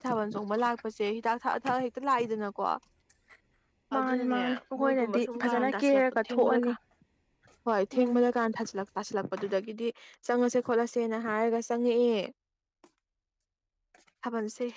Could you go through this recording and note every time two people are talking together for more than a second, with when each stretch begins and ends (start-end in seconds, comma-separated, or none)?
4.0-6.7